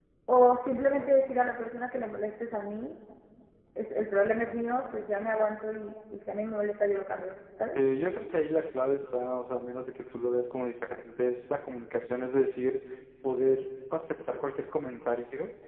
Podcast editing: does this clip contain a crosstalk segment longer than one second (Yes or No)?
No